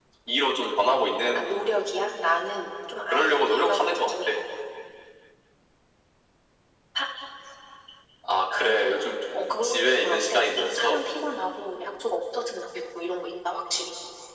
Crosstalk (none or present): present